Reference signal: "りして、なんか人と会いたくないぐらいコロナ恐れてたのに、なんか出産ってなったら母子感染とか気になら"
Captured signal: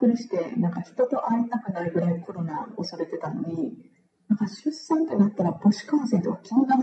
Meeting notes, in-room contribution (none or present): none